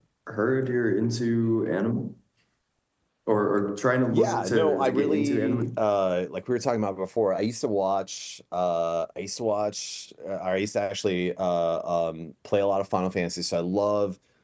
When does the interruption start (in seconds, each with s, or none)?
4.1 s